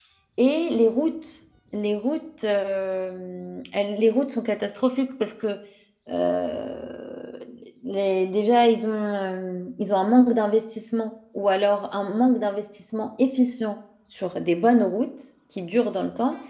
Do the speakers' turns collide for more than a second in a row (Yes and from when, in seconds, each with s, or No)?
No